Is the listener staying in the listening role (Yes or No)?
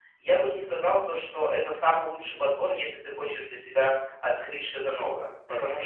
Yes